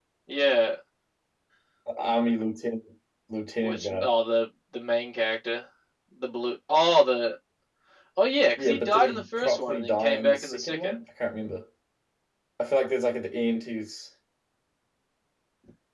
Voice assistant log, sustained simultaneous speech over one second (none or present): present